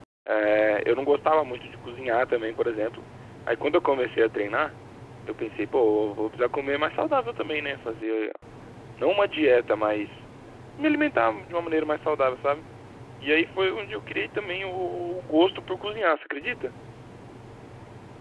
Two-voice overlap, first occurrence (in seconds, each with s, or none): none